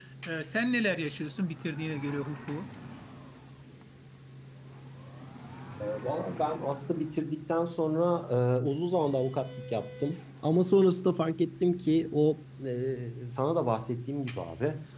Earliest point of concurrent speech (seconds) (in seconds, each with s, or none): none